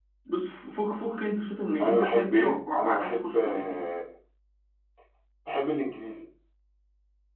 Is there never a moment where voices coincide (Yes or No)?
No